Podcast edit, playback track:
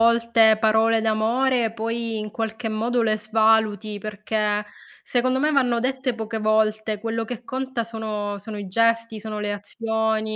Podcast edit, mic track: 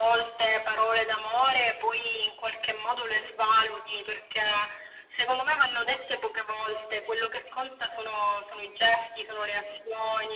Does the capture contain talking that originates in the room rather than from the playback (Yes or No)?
No